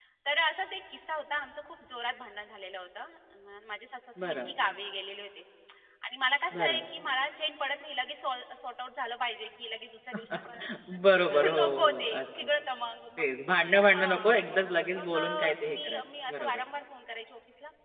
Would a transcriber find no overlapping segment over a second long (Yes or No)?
No